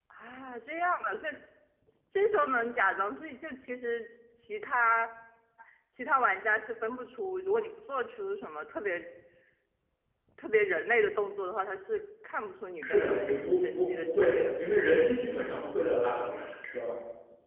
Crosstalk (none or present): present